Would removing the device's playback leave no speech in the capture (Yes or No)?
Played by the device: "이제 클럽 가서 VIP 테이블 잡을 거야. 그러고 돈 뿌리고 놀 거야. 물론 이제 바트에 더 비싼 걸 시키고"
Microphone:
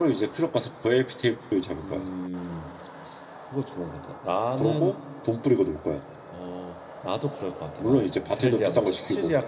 No